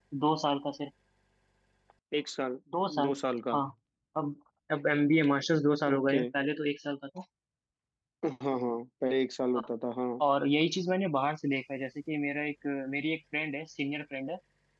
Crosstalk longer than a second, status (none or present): none